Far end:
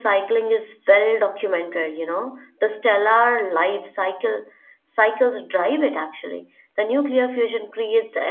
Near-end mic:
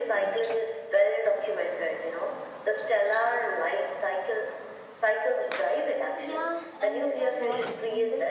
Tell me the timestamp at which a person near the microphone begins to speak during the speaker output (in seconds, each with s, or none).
6.1 s